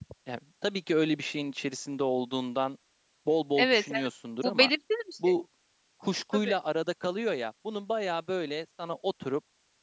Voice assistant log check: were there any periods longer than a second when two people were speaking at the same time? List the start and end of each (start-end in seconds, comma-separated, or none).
none